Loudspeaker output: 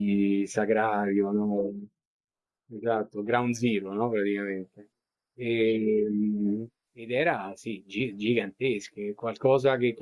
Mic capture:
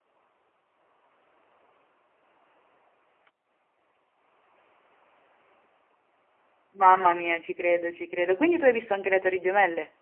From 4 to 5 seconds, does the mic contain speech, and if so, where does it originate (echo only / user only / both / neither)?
neither